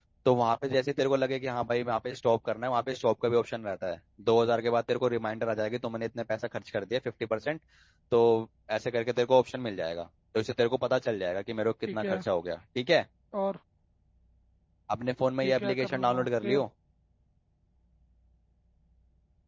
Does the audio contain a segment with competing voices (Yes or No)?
Yes